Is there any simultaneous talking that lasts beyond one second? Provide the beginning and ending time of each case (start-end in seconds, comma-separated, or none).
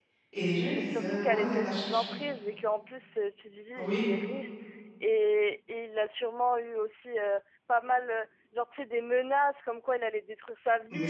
0.7-2.2